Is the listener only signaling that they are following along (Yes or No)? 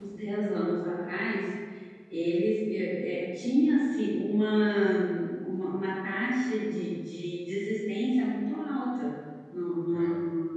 Yes